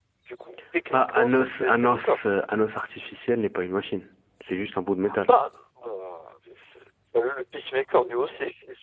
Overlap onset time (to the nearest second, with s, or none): 1 s